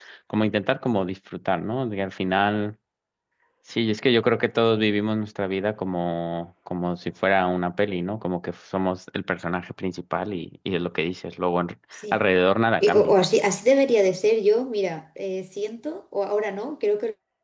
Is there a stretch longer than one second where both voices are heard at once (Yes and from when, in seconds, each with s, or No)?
No